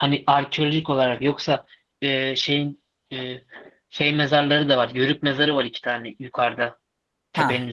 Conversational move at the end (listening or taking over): listening